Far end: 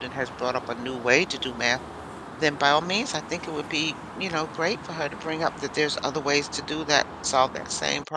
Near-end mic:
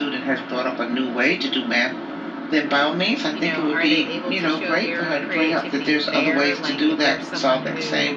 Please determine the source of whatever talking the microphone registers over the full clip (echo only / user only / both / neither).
both